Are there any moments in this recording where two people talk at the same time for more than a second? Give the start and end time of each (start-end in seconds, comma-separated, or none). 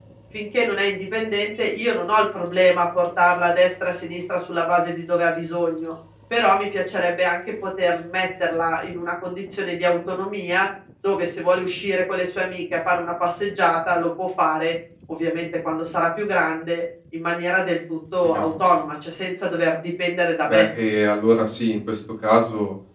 none